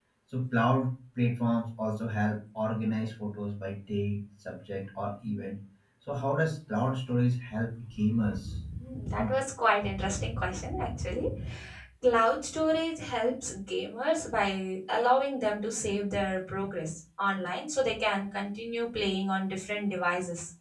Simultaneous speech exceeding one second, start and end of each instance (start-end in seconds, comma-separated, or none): none